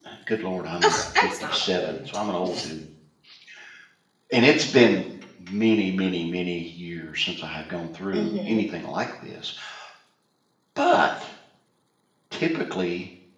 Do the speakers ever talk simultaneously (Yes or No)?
Yes